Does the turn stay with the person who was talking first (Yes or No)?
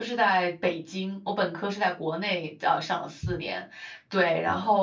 Yes